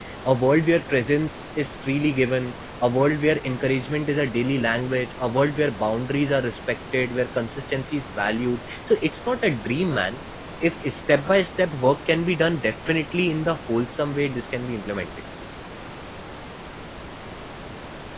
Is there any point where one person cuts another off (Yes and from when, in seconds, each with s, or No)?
No